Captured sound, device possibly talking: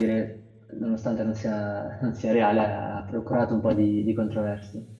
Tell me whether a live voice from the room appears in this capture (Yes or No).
Yes